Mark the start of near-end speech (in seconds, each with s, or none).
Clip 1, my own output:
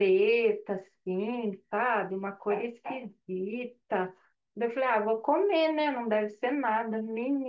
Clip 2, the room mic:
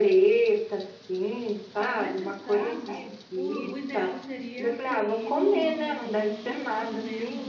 1.7 s